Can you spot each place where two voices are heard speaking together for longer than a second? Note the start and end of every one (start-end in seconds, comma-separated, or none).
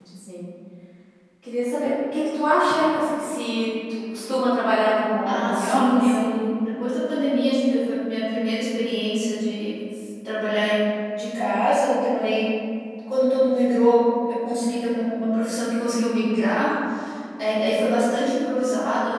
5.2-6.5